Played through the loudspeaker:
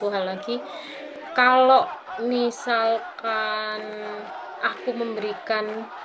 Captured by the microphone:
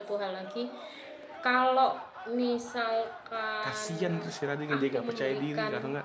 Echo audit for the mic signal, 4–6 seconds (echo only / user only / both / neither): both